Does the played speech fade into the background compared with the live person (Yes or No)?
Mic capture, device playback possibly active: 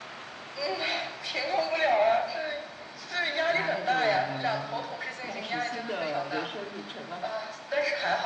No